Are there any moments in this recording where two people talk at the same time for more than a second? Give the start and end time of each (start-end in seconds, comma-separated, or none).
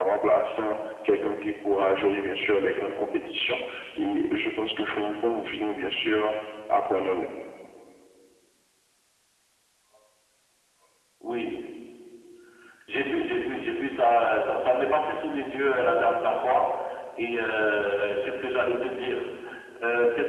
none